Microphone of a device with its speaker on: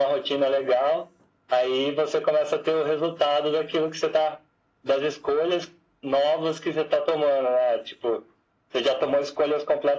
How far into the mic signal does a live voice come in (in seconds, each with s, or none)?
none